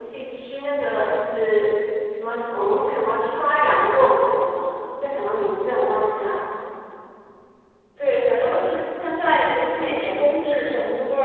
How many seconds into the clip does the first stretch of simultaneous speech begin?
none

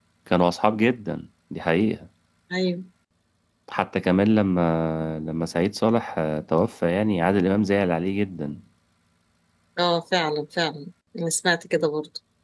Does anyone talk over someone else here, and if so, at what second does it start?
none

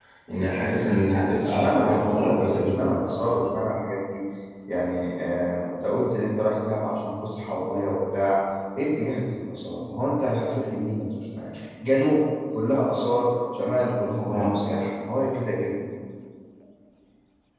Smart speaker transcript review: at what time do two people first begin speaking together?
1.3 s

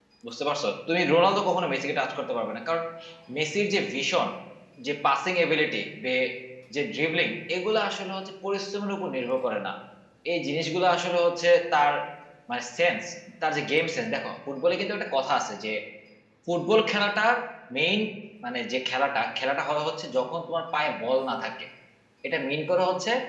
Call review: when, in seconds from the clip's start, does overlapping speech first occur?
none

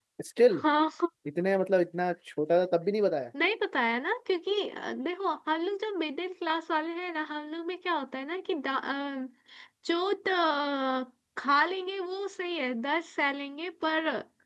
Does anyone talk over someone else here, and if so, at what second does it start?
none

